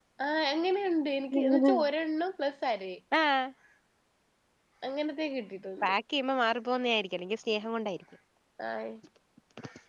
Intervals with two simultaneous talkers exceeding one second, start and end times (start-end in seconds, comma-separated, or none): none